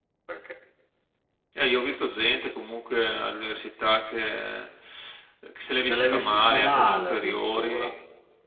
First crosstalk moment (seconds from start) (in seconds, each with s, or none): 5.9 s